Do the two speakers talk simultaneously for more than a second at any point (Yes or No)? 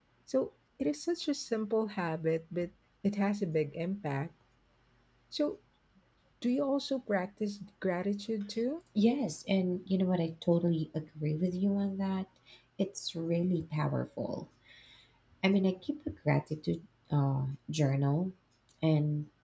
No